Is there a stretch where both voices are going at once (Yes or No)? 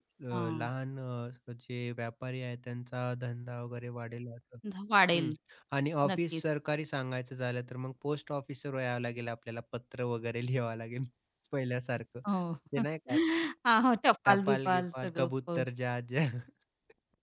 Yes